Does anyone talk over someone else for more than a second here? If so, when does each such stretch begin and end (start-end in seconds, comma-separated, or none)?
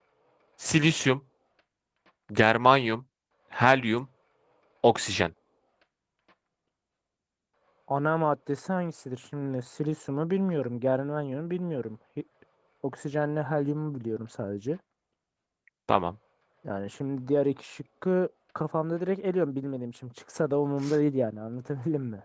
none